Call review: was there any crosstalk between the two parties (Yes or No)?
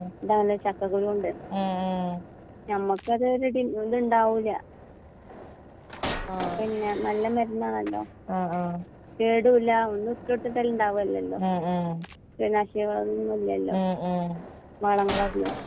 No